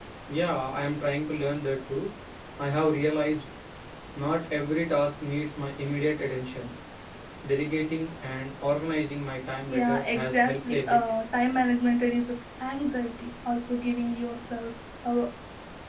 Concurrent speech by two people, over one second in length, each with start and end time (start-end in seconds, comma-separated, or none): 9.7-11.0